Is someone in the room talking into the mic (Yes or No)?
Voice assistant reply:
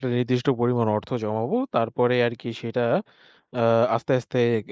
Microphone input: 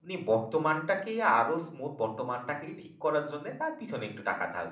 Yes